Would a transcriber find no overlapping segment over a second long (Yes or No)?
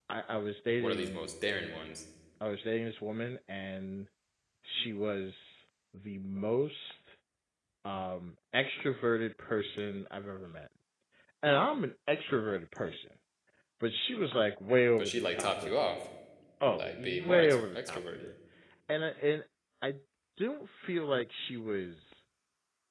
No